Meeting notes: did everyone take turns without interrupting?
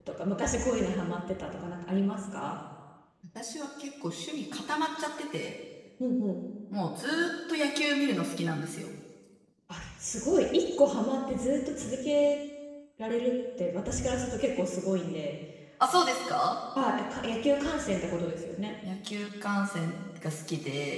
Yes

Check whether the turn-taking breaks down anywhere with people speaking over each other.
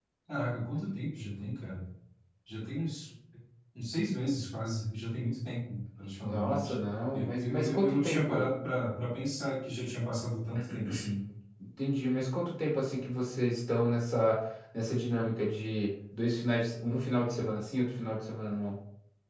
Yes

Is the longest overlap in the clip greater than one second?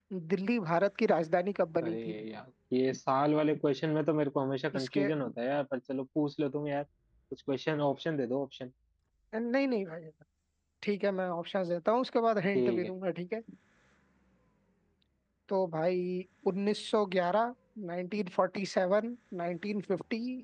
No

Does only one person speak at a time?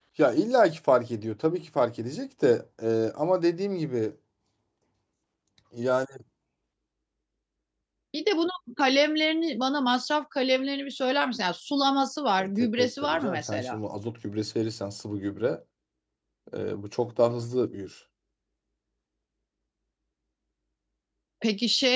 No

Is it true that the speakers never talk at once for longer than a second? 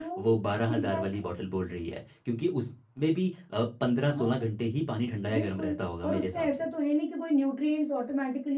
No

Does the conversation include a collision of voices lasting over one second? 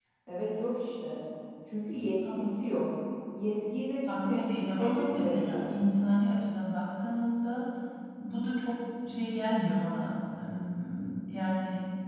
Yes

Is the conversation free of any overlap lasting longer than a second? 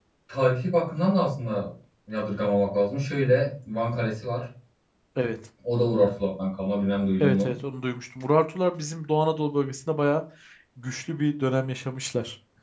Yes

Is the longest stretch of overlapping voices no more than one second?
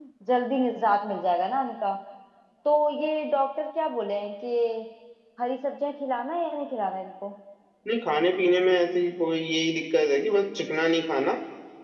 Yes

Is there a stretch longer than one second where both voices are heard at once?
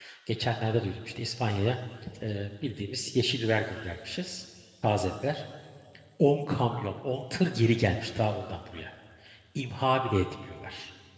No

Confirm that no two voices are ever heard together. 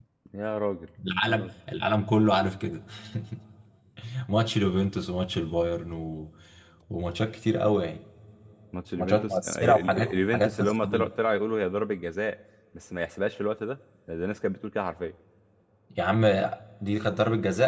No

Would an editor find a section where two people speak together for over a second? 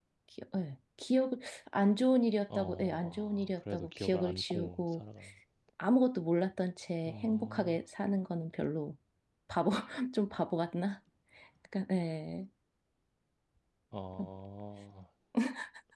Yes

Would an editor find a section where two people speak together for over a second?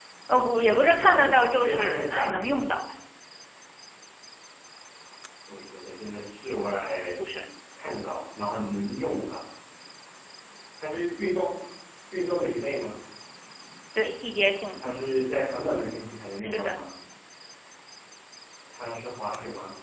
Yes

